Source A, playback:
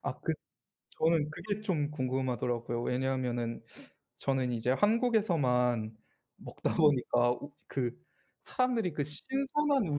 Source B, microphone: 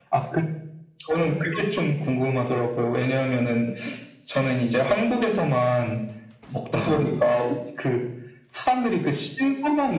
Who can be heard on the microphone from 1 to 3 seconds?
echo only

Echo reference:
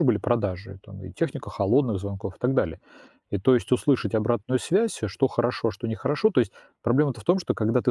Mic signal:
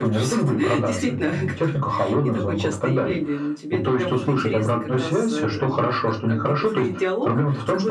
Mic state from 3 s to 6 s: both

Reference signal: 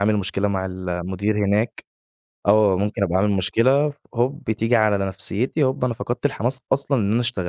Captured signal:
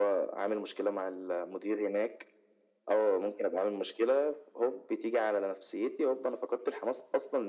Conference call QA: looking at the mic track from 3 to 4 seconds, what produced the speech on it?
echo only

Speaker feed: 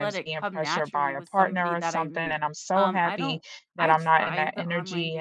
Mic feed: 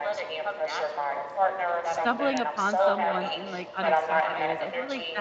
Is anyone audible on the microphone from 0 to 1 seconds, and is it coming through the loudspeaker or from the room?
echo only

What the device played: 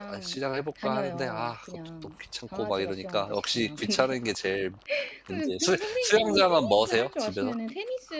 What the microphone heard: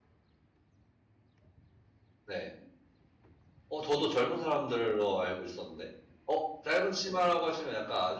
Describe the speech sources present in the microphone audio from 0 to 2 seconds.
neither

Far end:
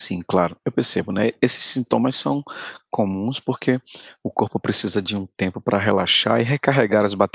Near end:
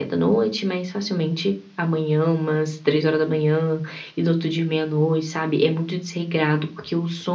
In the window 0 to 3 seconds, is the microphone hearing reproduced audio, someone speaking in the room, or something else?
user only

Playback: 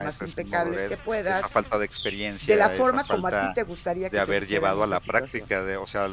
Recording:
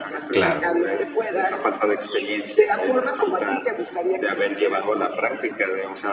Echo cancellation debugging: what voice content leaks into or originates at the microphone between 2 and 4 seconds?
echo only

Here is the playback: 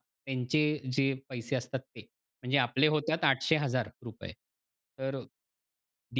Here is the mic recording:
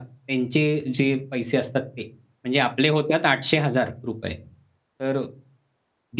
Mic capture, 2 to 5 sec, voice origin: echo only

